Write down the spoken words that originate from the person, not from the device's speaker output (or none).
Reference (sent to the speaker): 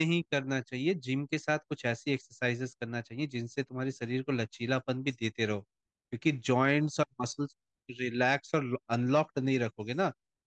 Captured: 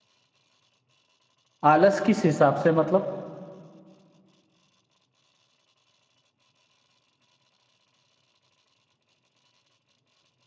आलस किस हिसाब से मतलब